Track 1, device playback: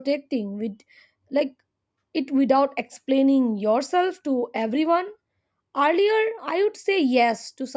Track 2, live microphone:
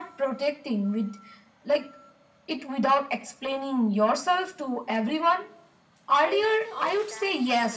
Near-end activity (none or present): present